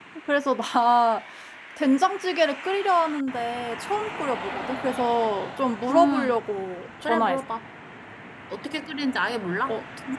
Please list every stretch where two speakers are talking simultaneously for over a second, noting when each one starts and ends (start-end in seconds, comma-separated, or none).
none